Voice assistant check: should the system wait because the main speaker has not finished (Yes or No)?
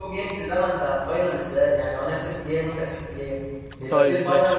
No